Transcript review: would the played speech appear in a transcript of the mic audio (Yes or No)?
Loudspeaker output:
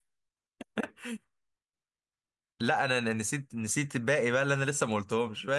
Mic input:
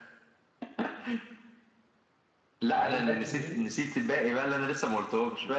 Yes